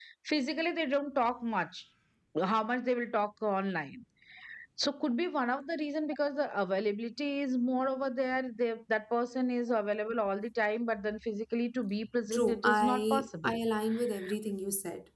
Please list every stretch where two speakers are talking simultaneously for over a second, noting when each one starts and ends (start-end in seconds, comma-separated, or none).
12.3-13.5